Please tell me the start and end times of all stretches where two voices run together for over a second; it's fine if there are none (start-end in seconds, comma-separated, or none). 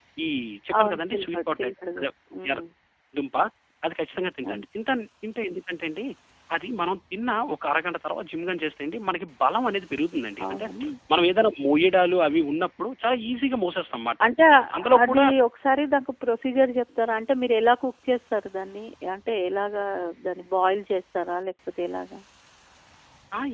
0.8-2.0